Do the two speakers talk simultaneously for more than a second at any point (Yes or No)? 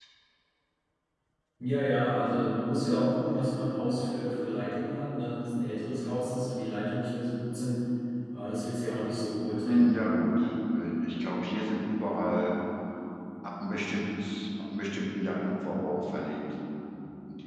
No